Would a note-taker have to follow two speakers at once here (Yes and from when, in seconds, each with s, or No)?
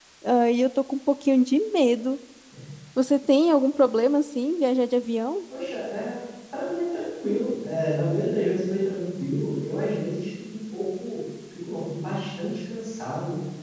No